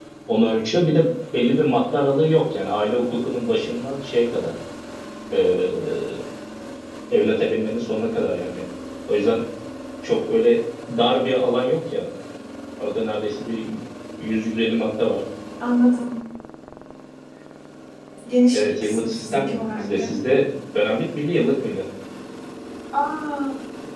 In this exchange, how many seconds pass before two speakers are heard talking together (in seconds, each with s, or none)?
18.5 s